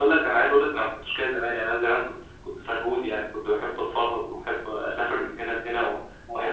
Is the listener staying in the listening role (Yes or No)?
Yes